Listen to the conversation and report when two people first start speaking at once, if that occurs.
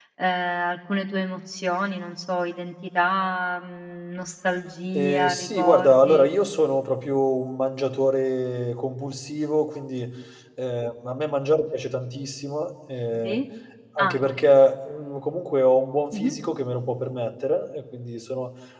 4.9 s

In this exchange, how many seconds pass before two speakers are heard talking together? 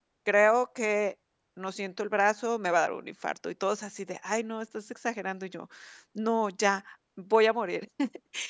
none

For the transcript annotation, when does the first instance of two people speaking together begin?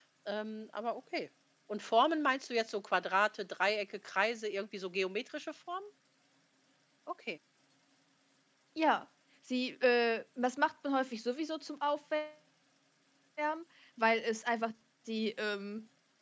none

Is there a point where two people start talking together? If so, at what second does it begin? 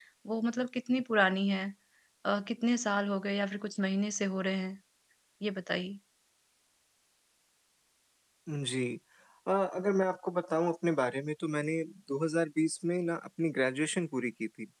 none

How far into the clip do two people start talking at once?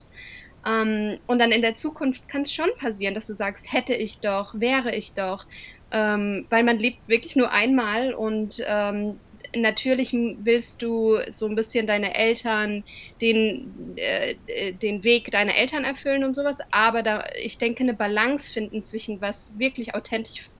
none

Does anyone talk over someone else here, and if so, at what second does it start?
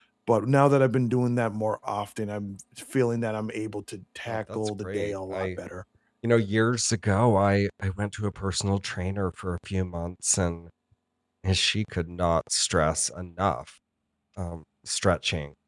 4.3 s

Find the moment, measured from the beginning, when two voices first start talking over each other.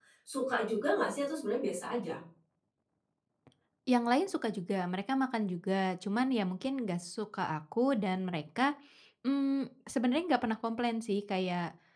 none

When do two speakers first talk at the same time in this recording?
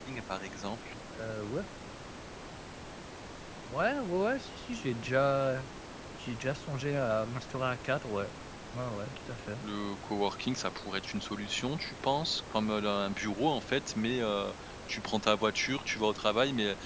none

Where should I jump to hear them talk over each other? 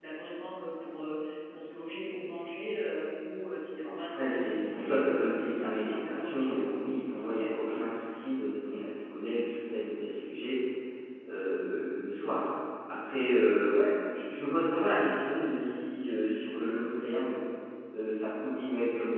4.1 s

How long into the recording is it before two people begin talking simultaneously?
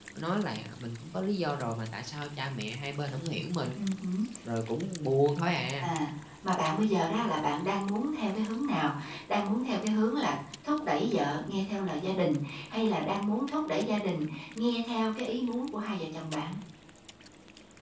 none

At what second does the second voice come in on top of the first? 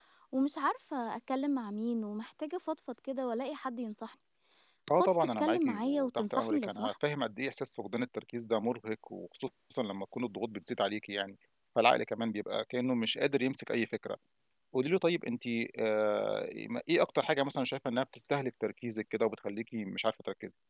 5.0 s

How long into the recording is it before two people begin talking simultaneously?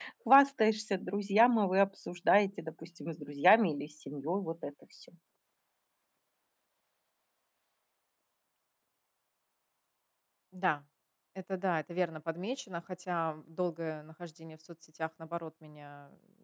none

